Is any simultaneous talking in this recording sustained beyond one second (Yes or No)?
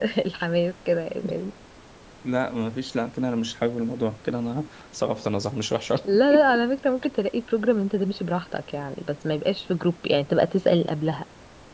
No